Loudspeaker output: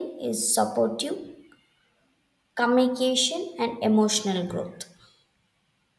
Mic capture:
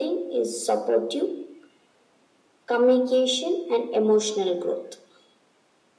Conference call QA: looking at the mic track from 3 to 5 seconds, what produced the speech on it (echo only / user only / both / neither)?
echo only